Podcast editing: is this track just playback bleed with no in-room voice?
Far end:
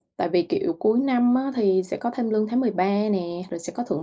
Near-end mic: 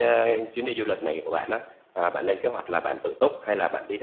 No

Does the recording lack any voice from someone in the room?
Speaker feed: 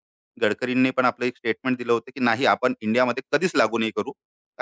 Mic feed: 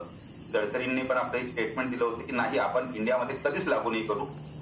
Yes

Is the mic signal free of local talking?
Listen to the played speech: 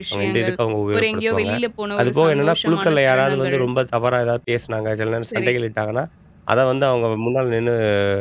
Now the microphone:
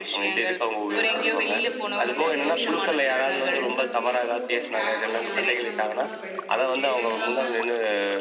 No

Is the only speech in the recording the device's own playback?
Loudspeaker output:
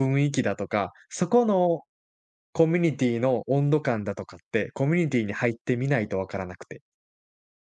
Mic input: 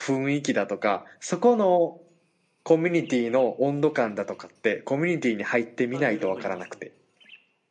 No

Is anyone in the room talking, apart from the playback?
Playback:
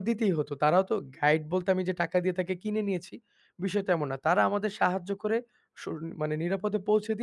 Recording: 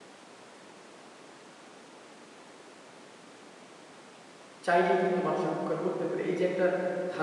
Yes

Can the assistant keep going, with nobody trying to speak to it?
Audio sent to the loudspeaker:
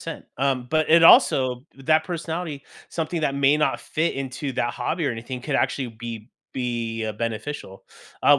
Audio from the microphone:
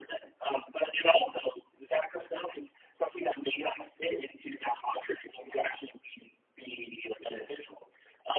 Yes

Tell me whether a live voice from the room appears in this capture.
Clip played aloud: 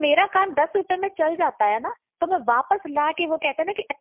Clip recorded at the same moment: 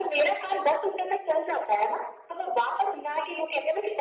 No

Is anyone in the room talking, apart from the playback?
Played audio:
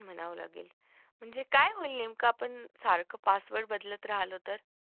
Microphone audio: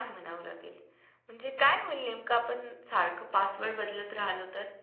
No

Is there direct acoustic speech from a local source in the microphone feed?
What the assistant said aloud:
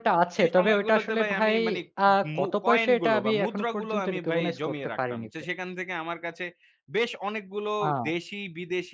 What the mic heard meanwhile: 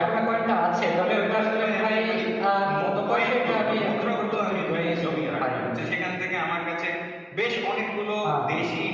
No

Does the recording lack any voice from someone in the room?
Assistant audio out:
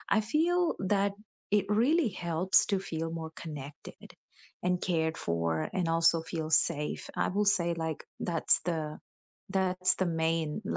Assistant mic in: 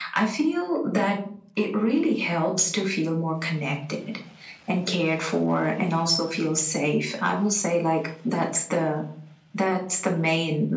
Yes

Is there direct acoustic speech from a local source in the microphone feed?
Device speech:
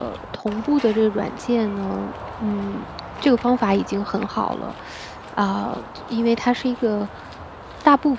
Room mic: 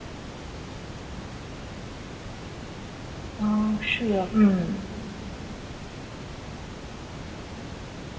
Yes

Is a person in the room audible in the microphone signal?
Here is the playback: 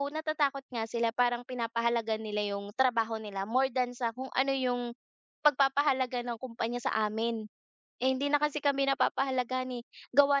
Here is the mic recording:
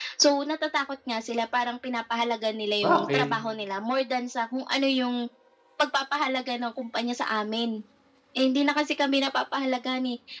Yes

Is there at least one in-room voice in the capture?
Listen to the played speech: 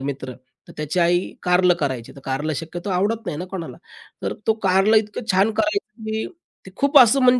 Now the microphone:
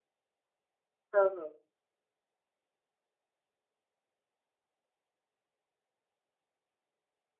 Yes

